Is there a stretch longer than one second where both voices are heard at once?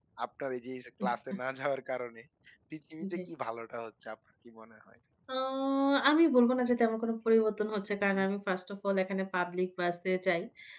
No

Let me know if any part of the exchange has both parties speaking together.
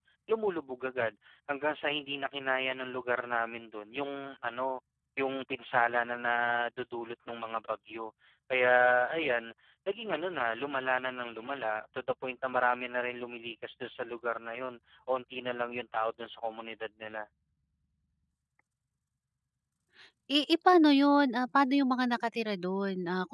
No

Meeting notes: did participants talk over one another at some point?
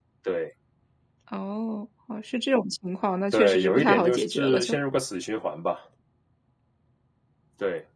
Yes, from 3.3 s

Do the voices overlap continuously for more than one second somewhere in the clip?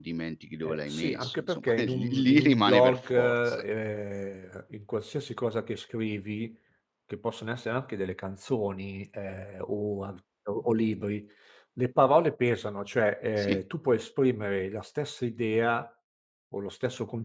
Yes, from 0.6 s

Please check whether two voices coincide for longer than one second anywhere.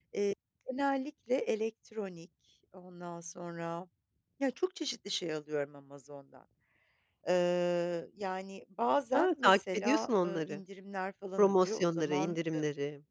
Yes, from 9.1 s

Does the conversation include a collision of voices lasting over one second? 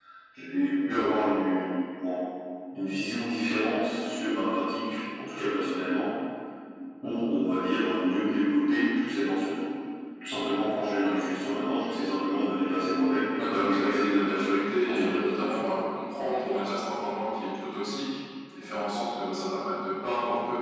Yes, from 13.4 s

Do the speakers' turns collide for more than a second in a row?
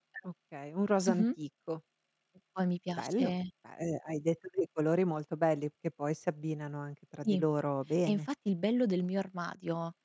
No

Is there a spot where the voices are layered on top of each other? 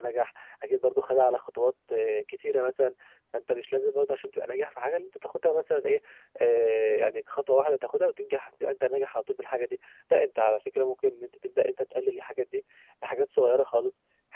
No

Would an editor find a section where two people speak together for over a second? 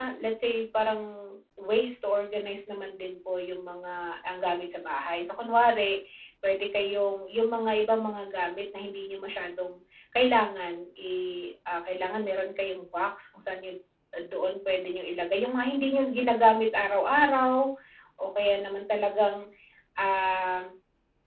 No

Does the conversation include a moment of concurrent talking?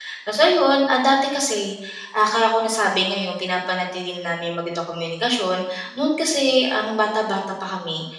No

